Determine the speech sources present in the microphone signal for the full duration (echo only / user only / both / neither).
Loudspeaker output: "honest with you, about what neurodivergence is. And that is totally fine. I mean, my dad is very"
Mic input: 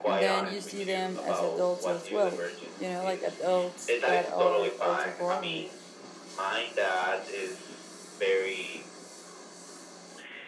both